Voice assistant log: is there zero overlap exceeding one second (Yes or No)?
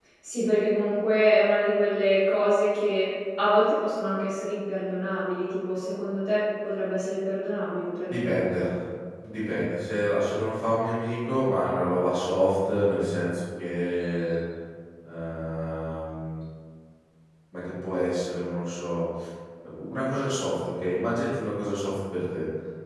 Yes